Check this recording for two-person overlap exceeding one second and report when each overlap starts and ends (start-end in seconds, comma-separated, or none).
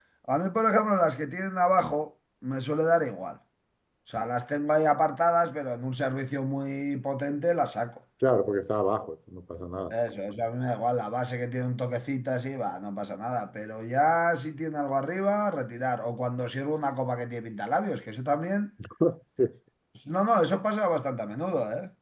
none